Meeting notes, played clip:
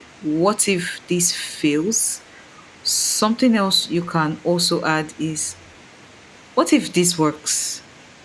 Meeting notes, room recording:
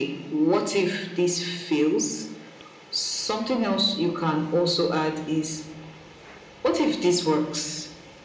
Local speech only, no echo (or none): none